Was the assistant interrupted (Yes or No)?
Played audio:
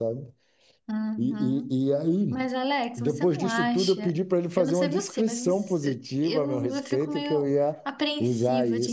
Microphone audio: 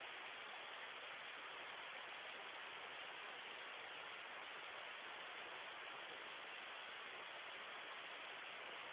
No